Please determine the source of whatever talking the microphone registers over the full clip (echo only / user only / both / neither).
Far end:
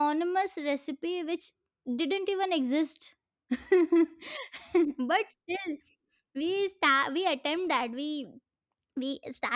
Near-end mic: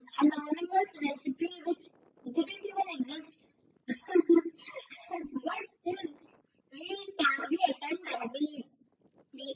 echo only